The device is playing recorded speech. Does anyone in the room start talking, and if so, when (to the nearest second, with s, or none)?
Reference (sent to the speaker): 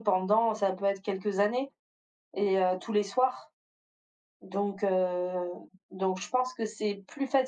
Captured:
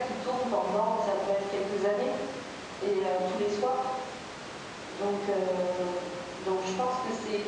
none